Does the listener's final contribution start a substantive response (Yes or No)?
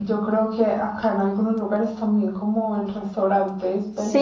Yes